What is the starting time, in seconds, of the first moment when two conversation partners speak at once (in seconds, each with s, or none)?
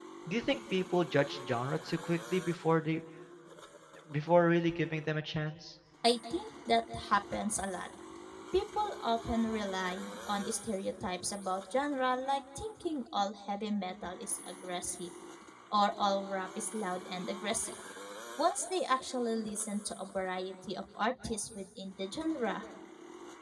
none